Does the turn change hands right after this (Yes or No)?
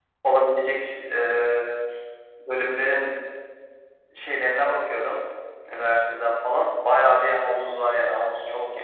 Yes